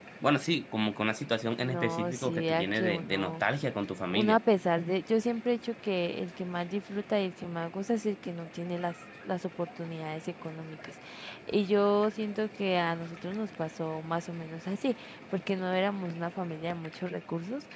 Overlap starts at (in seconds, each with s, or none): 1.6 s